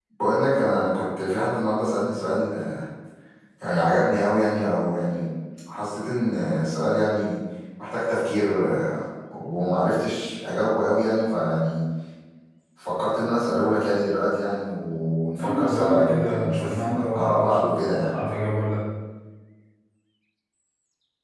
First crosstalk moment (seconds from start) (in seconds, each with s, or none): 15.4 s